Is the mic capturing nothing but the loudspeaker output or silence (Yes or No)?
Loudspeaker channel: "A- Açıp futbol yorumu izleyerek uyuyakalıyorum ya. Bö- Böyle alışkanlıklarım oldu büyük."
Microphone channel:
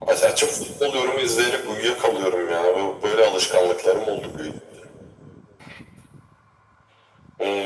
Yes